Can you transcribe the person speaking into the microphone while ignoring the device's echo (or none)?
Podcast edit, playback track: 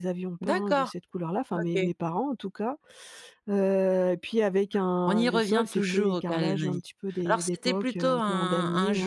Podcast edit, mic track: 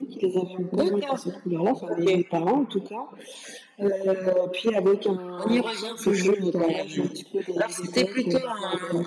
none